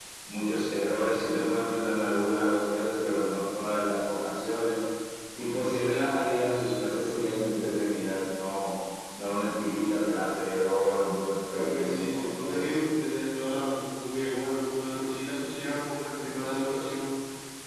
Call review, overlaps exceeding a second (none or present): present